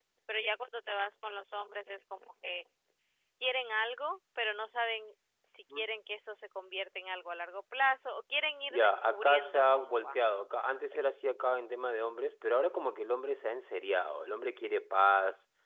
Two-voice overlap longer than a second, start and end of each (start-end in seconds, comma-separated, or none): 8.7-10.2